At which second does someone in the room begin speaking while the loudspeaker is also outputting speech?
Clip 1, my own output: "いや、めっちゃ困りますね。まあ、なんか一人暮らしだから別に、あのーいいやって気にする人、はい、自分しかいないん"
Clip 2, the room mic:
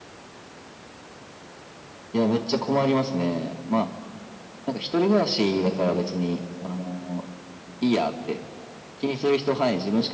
none

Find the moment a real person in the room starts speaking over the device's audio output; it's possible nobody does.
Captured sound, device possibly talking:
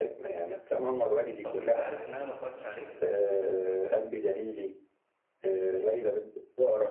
1 s

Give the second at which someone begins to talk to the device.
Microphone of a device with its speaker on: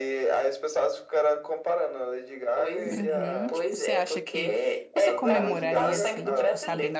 3 s

